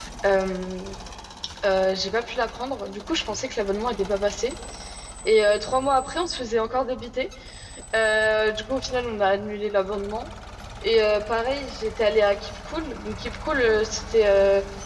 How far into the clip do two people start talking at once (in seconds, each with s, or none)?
none